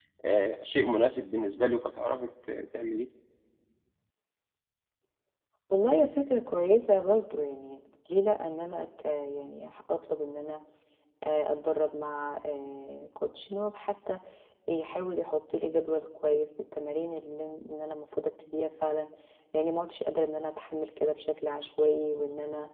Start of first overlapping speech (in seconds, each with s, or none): none